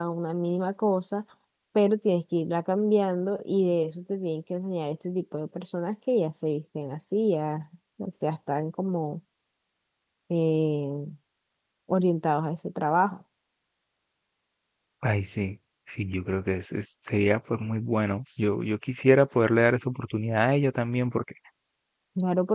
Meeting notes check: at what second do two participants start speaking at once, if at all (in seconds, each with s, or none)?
none